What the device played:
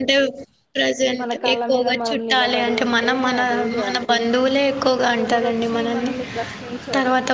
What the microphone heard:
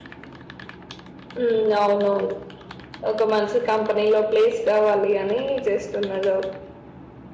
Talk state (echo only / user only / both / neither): user only